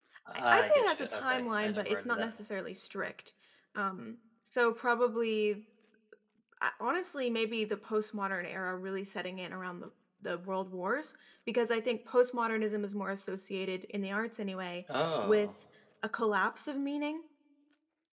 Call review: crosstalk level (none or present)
present